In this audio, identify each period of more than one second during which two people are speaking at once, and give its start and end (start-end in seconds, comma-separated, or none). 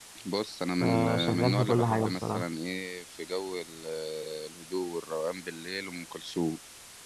0.8-2.5